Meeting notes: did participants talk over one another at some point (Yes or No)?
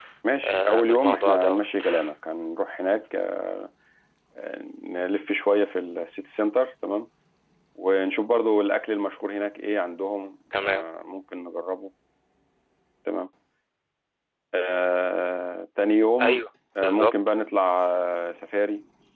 Yes